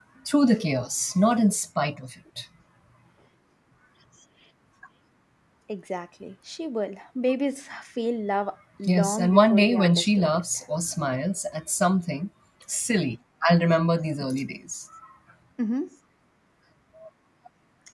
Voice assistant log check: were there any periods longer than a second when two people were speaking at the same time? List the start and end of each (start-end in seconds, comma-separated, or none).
8.9-10.4